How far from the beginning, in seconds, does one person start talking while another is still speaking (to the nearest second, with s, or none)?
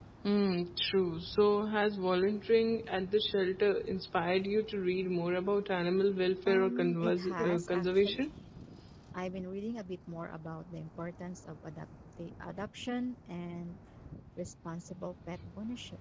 6 s